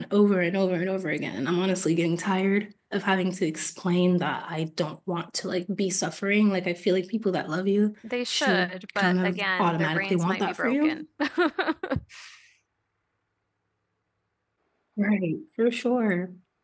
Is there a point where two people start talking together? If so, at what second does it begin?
8.3 s

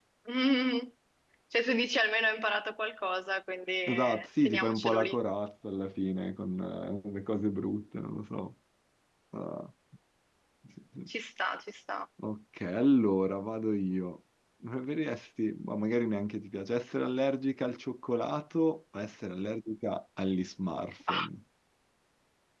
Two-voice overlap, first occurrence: 3.9 s

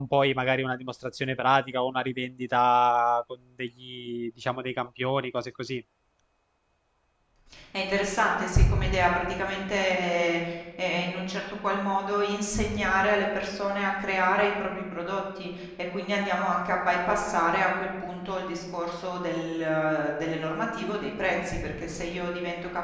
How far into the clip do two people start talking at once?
none

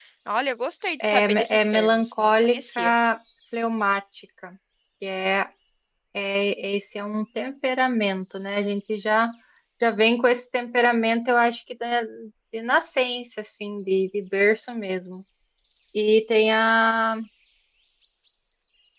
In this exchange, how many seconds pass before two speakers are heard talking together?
1.0 s

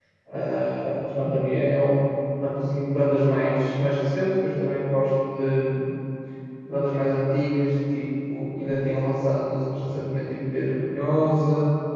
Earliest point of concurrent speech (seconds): none

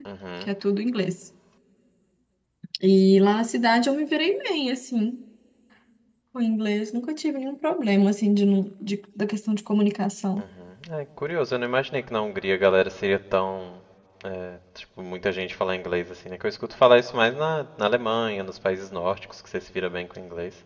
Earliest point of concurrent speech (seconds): none

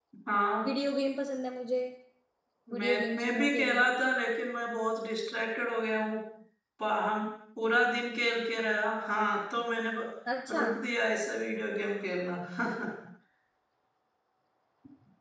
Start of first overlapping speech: 2.8 s

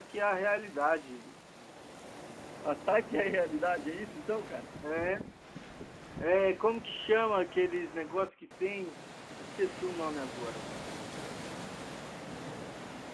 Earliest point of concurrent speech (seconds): none

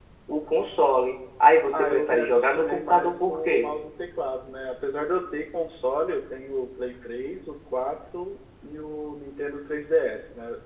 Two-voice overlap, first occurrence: 1.7 s

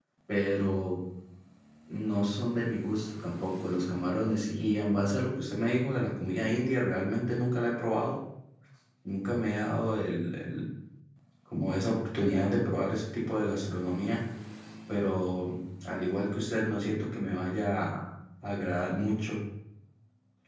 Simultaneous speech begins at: none

